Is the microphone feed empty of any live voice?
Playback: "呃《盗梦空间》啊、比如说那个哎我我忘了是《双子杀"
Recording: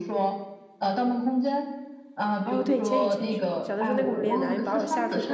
No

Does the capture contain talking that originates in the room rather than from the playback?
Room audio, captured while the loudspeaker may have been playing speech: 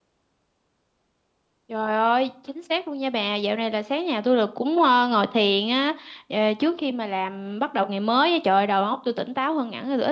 Yes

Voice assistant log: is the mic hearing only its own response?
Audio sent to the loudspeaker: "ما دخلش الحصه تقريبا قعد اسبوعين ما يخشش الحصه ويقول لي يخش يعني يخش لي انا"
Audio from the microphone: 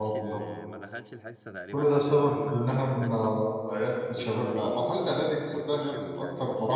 No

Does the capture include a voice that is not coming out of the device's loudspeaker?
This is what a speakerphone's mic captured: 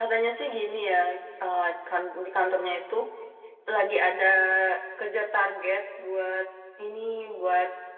Yes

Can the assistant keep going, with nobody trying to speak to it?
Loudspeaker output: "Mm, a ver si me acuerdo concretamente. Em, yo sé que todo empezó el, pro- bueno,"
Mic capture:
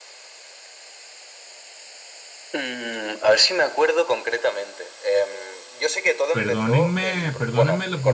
No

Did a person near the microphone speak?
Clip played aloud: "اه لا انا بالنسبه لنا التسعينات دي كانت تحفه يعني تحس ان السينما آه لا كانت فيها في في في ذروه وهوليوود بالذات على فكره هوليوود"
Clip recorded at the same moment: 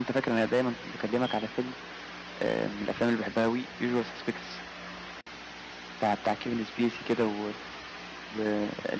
Yes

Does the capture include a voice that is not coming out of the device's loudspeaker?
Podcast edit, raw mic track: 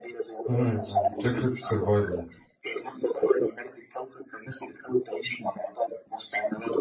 Yes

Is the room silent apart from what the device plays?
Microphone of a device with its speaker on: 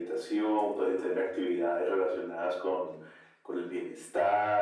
Yes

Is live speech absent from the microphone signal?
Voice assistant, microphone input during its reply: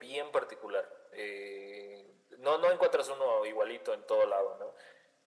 Yes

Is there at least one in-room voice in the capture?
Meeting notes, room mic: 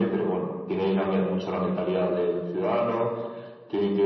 No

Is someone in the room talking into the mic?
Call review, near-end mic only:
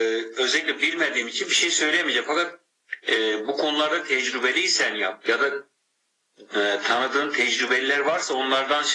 No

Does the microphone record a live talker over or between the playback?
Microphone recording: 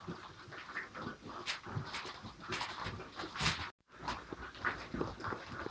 No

